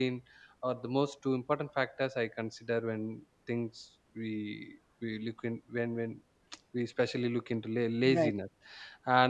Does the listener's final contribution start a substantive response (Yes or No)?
No